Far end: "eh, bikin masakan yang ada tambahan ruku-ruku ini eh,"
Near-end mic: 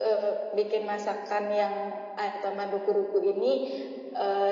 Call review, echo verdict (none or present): present